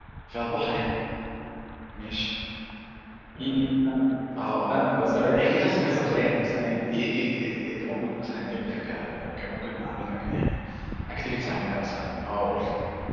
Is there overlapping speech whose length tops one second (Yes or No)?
Yes